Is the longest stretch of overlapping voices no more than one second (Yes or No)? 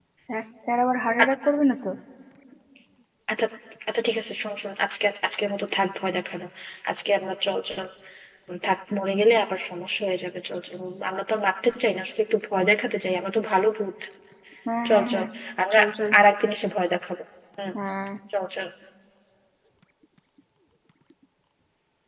Yes